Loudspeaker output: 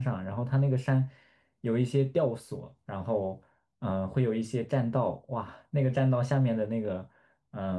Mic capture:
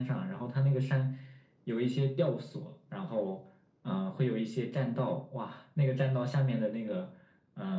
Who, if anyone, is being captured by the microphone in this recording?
echo only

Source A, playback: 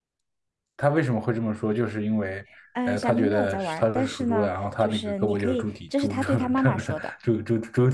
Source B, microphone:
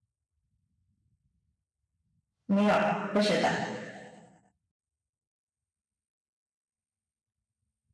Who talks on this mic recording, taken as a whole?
user only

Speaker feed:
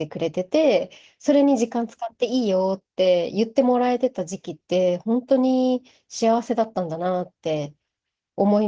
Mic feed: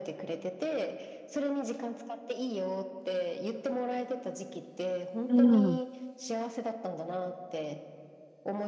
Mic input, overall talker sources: both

